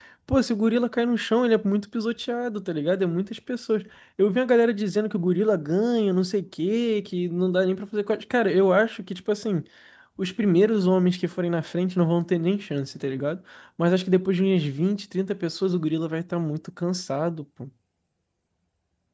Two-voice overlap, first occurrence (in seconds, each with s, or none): none